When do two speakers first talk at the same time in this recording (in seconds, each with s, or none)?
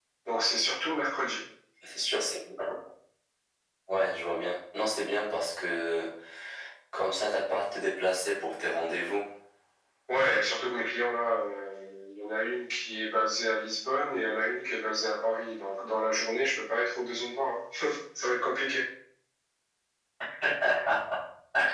none